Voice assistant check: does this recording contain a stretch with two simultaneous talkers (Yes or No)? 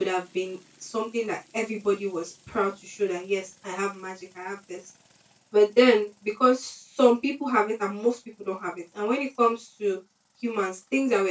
No